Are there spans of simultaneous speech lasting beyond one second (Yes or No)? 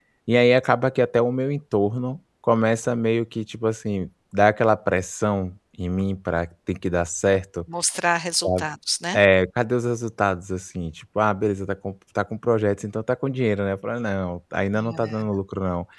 No